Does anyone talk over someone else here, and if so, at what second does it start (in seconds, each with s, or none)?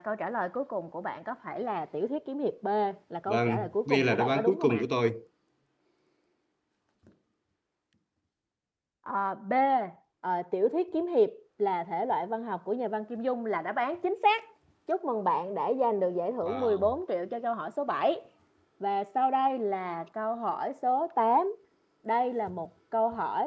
3.3 s